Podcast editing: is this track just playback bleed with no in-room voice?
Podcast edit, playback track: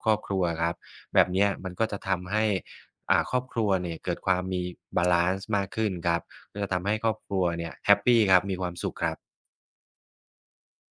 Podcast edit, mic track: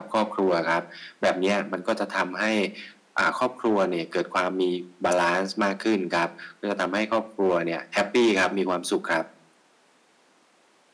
Yes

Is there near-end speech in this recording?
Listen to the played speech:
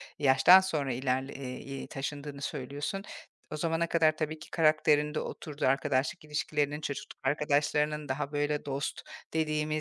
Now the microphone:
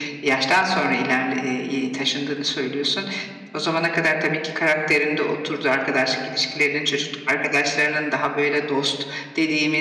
No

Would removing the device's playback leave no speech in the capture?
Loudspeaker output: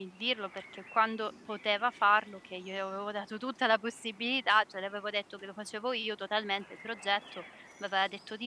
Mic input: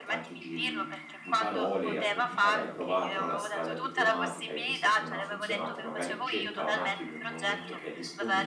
No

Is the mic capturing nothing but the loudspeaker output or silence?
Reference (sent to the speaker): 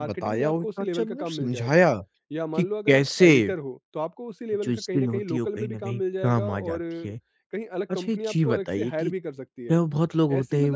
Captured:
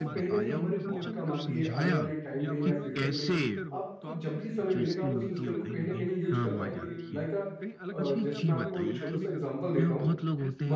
No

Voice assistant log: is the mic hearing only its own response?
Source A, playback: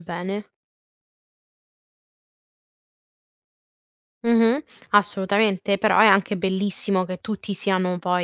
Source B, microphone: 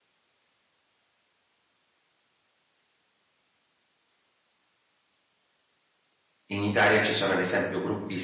No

